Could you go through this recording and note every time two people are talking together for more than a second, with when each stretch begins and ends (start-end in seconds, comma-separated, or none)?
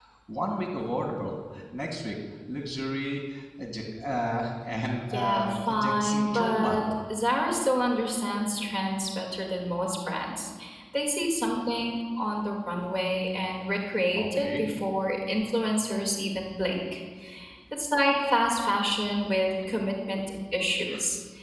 5.1-6.8